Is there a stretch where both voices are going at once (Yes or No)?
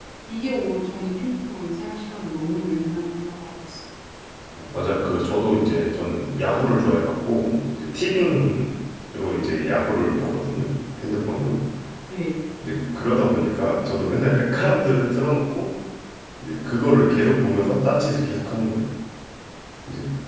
No